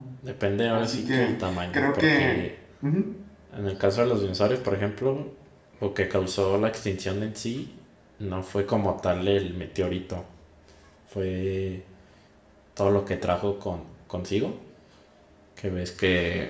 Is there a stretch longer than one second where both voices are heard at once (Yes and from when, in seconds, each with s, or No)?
Yes, from 0.7 s